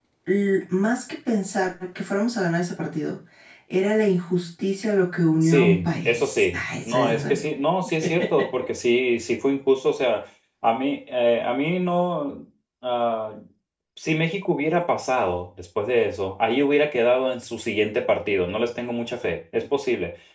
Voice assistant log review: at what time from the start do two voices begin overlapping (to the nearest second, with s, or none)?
5 s